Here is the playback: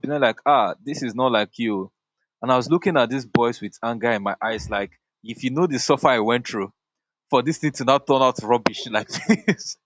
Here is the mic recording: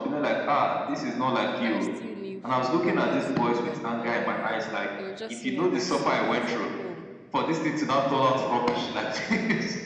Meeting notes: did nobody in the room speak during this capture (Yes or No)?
No